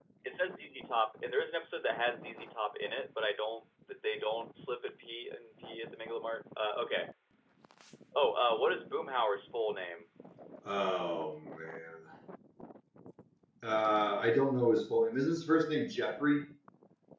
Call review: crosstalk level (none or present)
none